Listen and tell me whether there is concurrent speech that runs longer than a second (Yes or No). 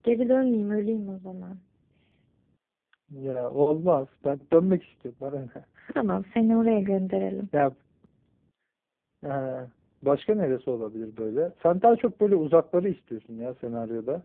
No